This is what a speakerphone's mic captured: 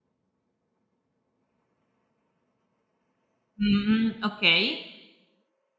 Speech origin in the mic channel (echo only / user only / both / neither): user only